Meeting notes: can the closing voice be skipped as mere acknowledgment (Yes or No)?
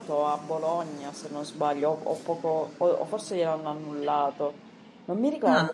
Yes